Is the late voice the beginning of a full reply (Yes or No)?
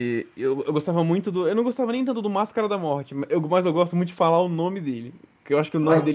No